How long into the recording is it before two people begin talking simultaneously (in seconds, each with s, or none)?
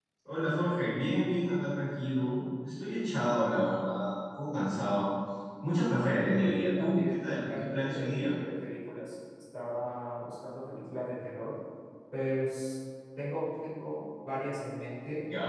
6.1 s